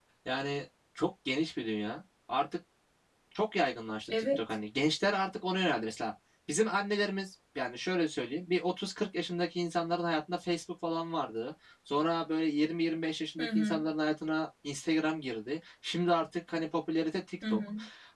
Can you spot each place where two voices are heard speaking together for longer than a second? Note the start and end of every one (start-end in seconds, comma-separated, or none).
none